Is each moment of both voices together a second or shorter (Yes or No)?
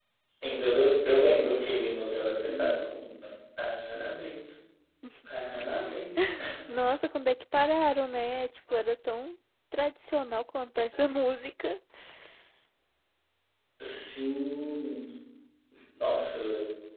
Yes